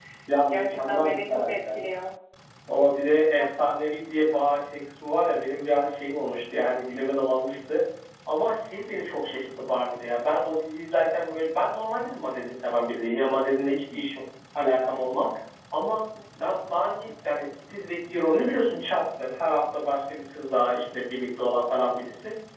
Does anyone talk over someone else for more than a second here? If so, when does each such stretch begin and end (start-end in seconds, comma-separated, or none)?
0.5-1.8